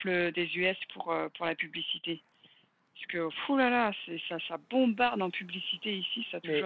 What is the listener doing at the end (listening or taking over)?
taking over